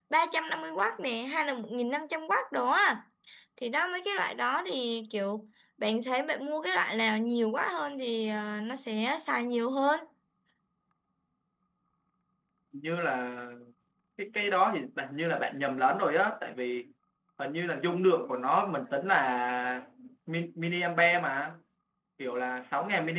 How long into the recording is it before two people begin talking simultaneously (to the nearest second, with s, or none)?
none